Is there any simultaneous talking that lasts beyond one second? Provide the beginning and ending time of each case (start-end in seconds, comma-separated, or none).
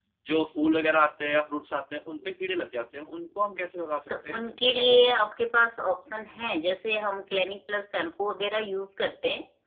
none